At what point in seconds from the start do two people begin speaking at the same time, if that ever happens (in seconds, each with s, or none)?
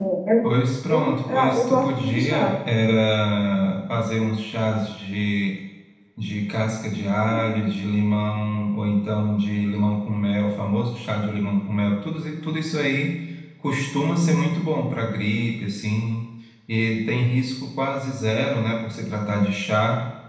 0.9 s